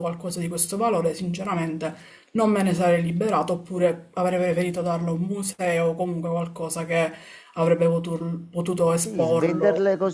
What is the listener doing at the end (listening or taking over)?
taking over